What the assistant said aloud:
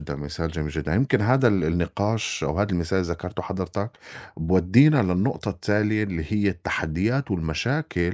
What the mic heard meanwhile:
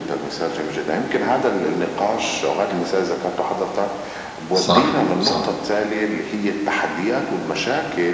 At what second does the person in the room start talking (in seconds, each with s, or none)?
4.5 s